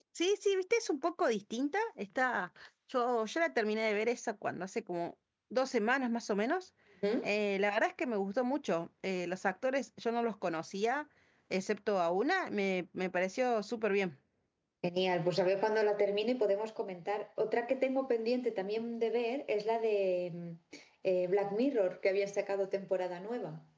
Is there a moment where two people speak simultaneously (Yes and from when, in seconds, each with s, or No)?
No